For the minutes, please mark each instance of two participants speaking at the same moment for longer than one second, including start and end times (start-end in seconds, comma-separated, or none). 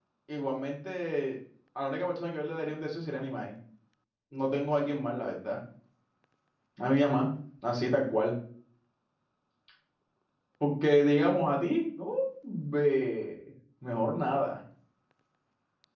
none